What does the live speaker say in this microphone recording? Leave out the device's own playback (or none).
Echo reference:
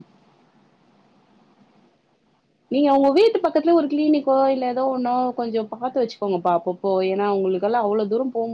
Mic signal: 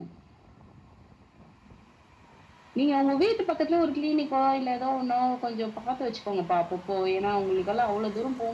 none